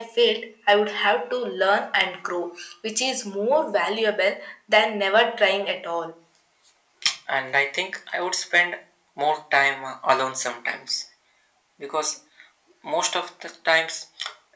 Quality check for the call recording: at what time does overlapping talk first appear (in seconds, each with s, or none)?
none